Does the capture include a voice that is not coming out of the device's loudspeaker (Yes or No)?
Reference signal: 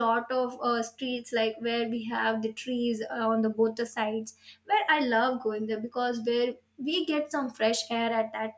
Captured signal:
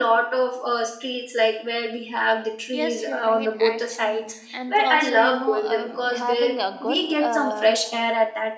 Yes